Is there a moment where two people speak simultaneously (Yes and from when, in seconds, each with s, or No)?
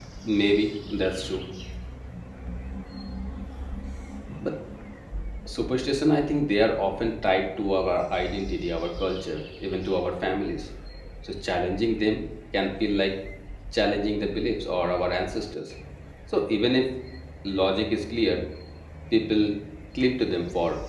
No